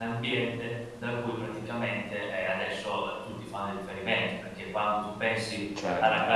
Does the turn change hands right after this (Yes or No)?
No